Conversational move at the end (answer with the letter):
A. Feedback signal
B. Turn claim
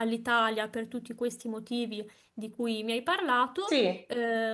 A